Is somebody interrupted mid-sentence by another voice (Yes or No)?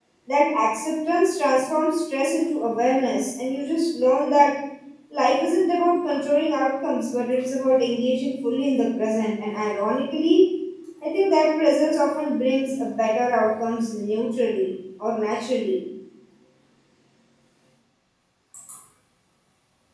No